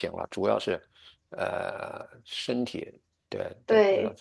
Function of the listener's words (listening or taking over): taking over